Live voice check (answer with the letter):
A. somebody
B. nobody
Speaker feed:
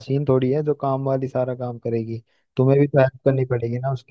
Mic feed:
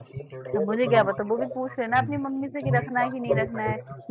A